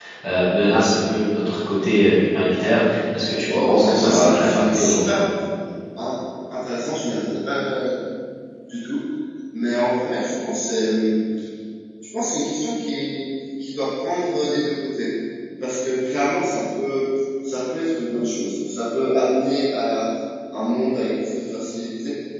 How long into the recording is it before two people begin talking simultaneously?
3.5 s

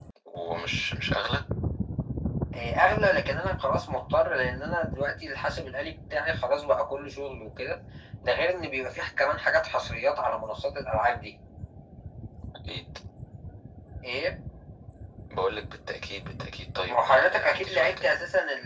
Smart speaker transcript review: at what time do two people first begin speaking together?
16.9 s

